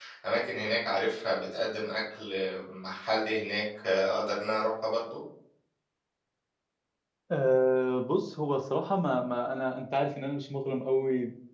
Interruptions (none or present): none